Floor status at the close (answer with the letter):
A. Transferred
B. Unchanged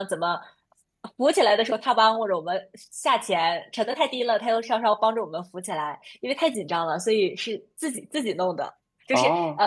B